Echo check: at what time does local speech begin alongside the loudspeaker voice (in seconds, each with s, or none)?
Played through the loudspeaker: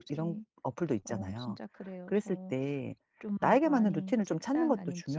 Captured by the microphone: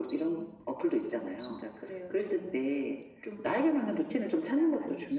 none